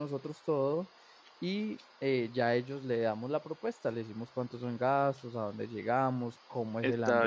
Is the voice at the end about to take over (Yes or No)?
No